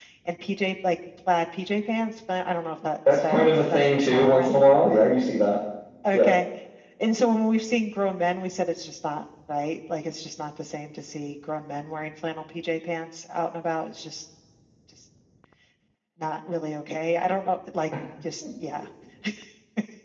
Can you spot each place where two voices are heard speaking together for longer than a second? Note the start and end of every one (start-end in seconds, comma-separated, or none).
3.1-4.5